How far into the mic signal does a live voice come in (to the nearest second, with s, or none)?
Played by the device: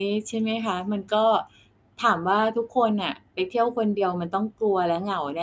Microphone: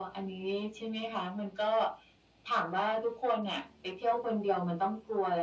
none